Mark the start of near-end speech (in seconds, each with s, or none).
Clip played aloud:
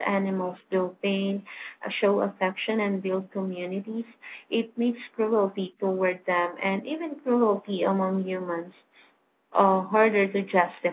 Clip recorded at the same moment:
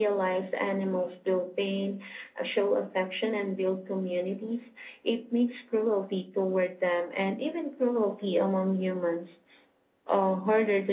none